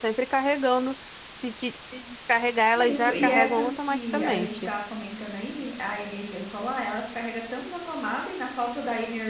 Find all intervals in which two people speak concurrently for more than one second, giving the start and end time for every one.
2.8-4.7

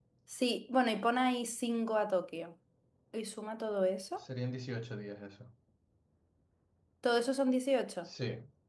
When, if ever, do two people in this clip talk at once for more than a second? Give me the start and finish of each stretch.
none

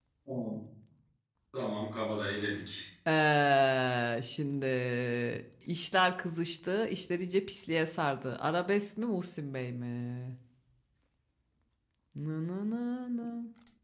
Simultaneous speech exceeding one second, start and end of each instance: none

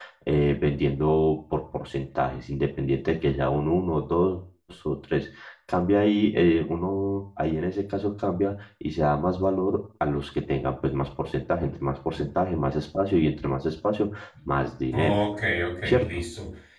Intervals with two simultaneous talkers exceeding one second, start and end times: none

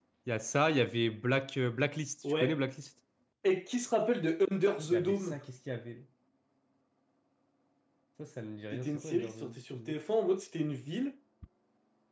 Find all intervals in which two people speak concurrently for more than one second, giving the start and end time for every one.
8.7-10.0

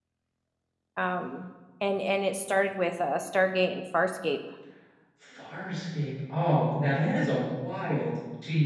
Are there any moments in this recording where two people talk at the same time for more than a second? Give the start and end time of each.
none

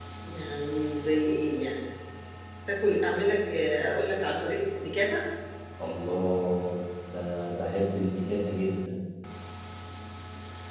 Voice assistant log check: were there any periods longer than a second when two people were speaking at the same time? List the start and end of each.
none

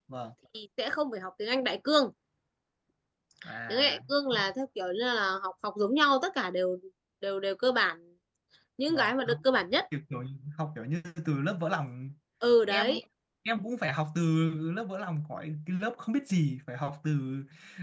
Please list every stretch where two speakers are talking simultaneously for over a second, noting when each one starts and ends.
none

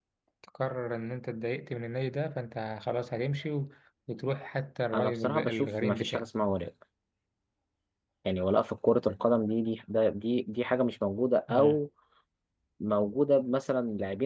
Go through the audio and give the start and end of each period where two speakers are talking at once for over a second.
4.9-6.3

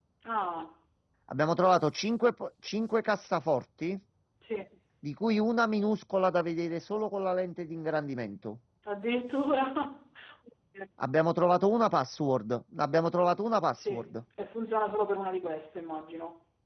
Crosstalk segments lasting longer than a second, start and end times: none

